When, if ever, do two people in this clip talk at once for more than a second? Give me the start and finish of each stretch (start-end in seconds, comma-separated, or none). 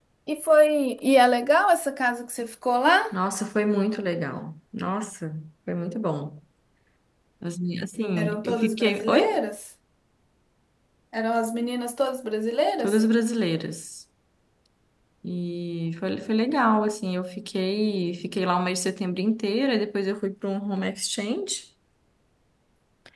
8.2-9.4